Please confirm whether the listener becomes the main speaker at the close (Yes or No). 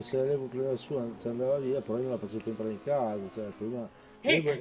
No